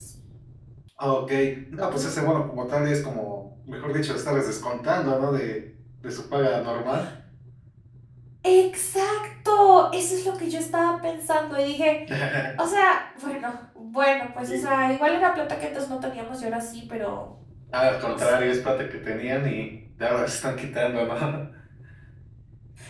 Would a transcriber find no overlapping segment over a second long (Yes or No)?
Yes